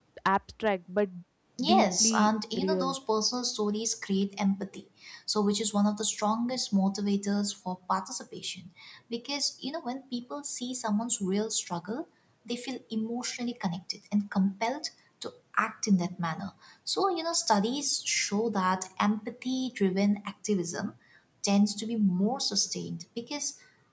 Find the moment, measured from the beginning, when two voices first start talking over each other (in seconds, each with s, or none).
1.6 s